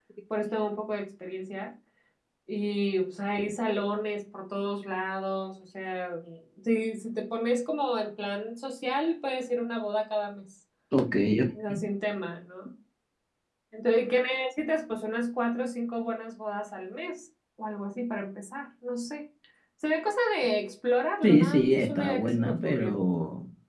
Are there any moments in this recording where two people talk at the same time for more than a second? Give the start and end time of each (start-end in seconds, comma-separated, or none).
21.2-22.9